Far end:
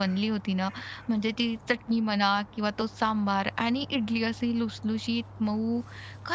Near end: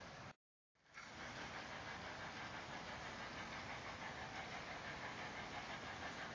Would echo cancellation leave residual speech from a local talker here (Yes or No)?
No